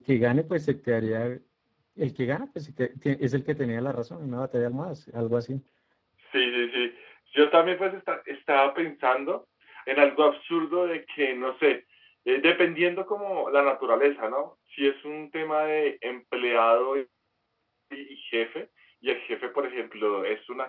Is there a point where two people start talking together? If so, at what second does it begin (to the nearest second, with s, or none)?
none